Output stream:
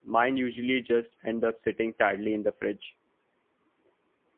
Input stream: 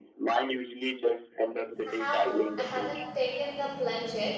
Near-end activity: present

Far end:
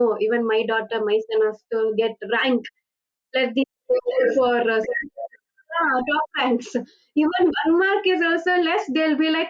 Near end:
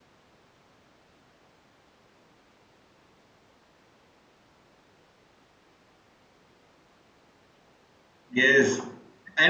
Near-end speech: present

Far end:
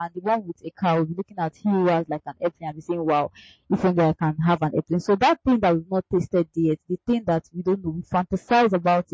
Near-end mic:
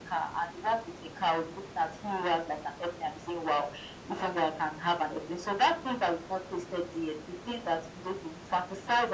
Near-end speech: none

